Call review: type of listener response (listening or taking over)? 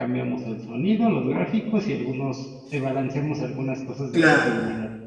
taking over